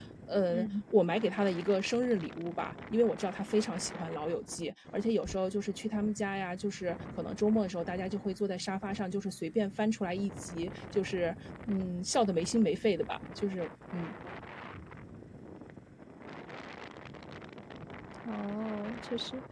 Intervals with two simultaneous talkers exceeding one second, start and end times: none

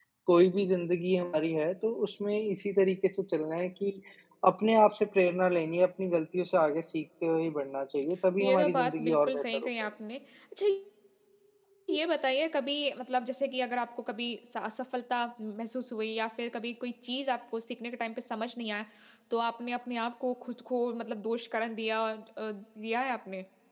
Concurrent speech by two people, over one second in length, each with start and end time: 8.4-9.9

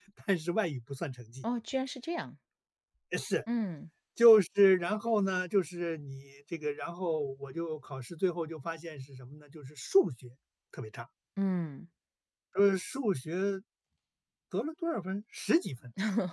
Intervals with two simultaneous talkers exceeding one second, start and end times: none

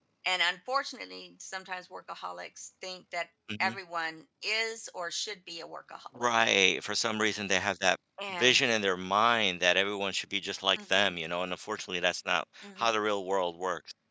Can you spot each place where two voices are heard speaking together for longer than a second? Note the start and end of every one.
none

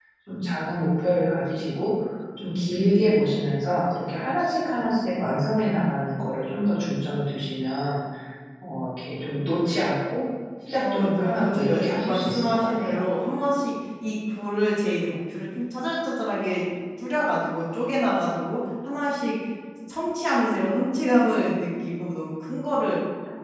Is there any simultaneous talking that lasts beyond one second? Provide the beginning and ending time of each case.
10.8-12.9

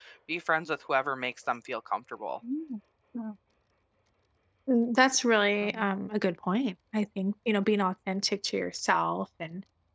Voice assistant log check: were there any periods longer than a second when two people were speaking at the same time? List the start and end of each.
none

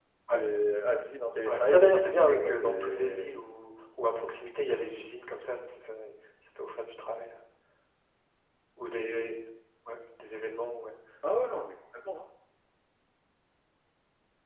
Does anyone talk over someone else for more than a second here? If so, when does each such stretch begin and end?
1.5-3.3

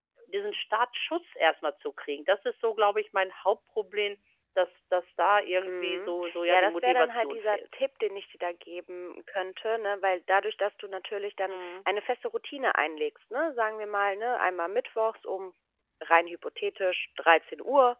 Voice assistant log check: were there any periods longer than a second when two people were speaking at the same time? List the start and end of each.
5.7-7.6

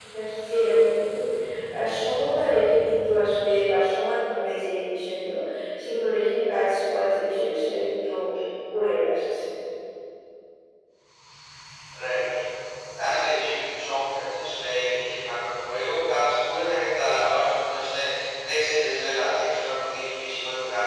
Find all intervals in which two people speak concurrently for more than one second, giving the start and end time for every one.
none

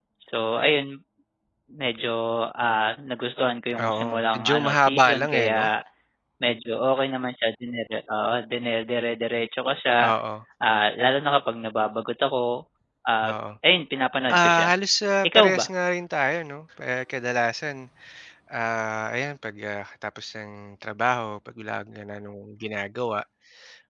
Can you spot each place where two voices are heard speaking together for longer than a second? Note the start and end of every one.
3.9-5.6

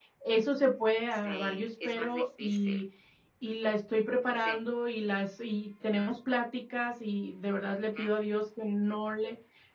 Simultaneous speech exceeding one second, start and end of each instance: 1.1-2.8

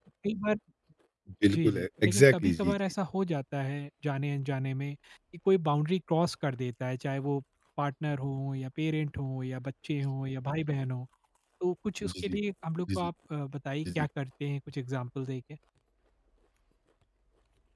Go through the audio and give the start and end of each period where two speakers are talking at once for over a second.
1.5-2.7

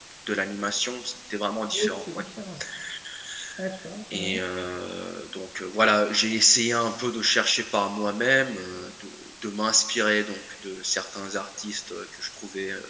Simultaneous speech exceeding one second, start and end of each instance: none

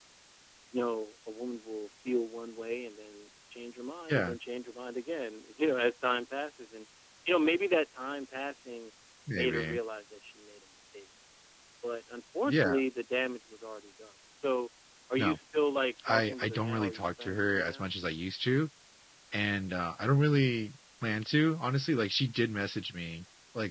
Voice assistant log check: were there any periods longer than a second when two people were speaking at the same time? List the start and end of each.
16.1-17.9

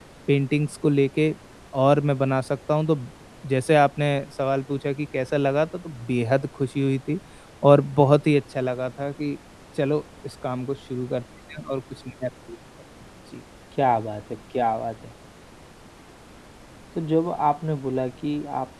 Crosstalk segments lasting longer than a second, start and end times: none

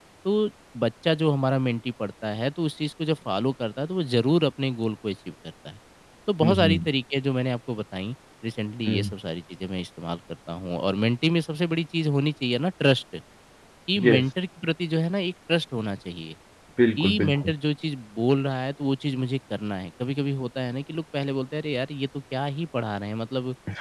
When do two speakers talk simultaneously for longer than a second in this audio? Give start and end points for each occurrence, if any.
none

